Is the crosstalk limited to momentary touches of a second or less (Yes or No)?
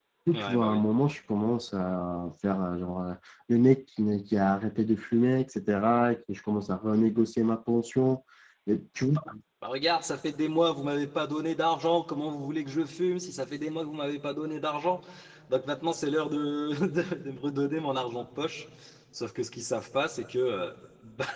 Yes